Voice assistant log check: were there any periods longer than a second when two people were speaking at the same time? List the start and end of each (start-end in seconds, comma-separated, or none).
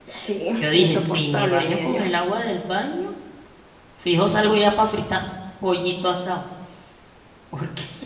0.6-2.0